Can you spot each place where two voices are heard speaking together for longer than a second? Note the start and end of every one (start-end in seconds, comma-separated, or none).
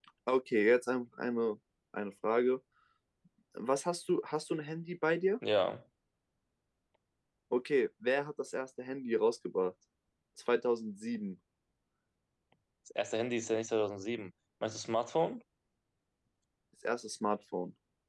none